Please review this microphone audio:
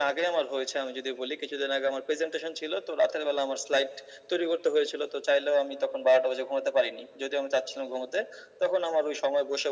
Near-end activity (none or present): none